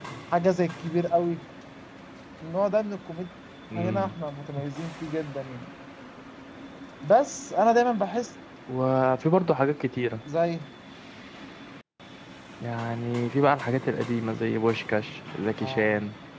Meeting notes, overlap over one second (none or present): none